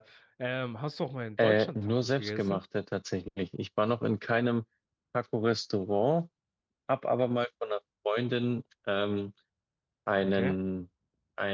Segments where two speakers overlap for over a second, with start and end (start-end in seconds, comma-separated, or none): 1.4-2.6